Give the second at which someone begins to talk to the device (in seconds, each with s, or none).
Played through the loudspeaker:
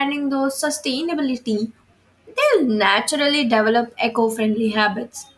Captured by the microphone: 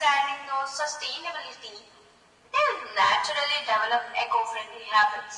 none